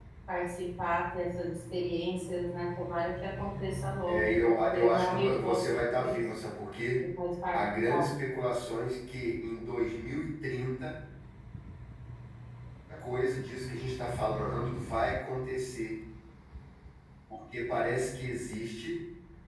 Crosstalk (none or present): present